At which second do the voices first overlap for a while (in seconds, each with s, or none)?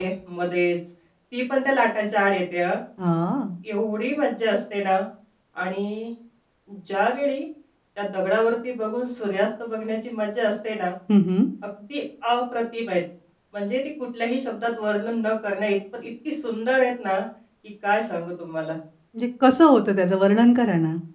none